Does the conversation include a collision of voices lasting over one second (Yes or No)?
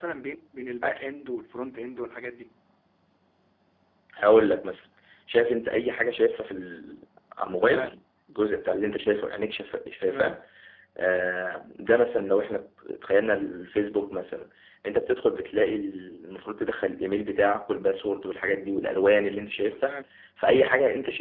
No